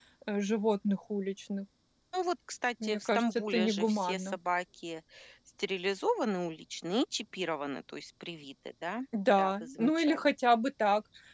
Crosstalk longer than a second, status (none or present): present